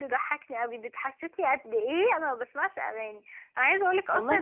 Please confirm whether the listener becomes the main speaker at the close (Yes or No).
No